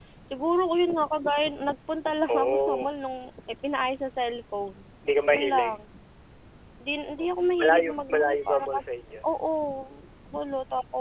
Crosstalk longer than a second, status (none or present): present